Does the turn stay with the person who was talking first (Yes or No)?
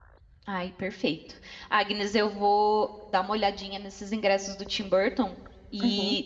Yes